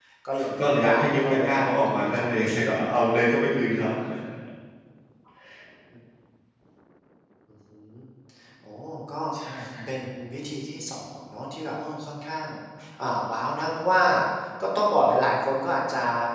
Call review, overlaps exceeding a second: present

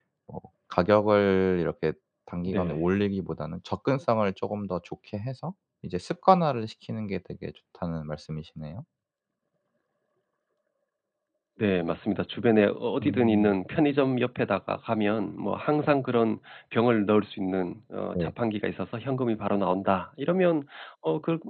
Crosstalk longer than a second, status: none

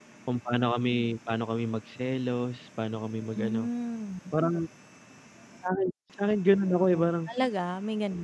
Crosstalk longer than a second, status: none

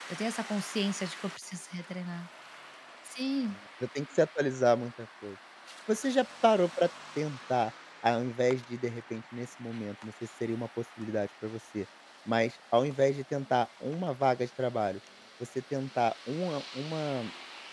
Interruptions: none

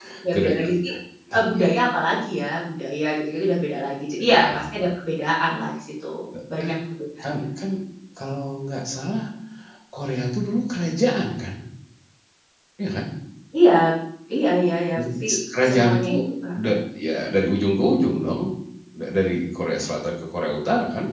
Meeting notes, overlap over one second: none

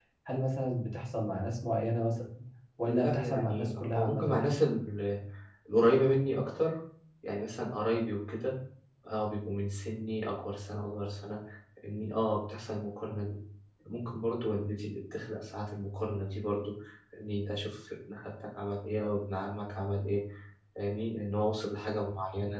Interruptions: present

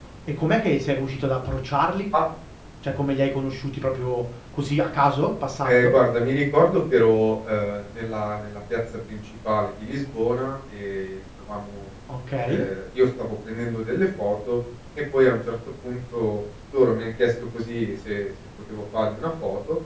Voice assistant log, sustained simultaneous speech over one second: none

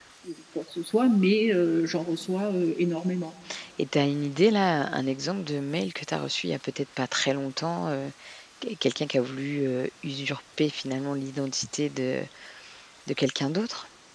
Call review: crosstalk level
none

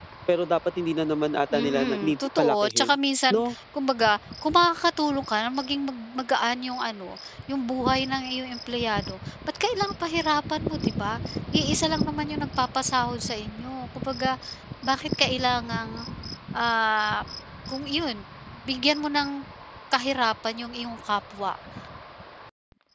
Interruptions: present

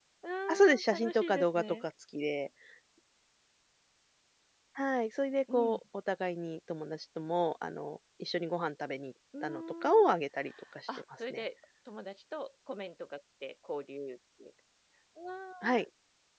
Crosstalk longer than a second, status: present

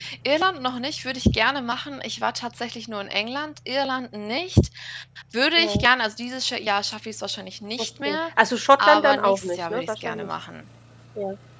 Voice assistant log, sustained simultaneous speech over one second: present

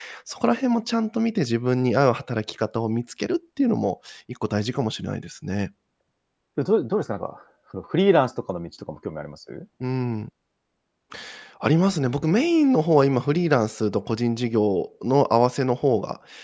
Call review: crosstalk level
none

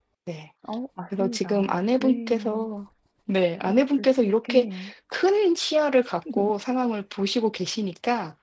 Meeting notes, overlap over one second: present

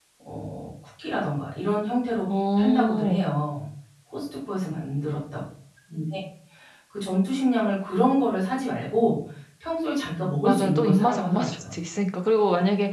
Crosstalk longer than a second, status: present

